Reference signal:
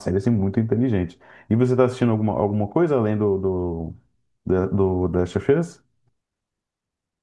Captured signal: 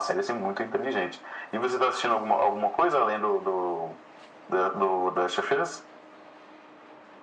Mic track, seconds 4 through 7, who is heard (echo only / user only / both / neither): echo only